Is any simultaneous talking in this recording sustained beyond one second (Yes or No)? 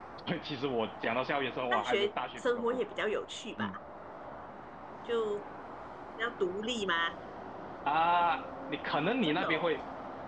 No